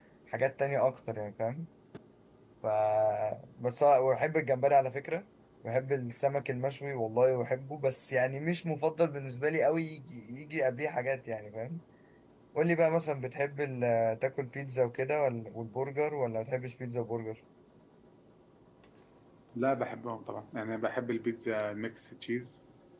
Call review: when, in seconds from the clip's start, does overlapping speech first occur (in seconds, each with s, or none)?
none